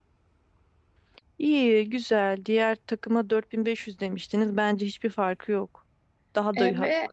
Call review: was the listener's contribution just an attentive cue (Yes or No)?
No